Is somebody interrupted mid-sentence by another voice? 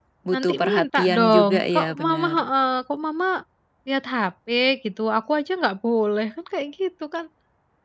Yes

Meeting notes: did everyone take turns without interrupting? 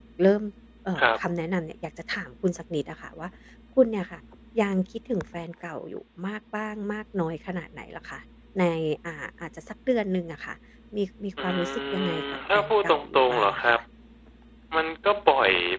No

